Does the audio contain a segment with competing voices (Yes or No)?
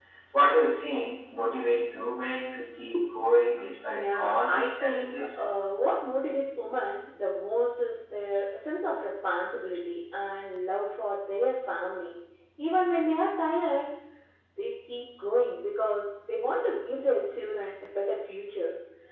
Yes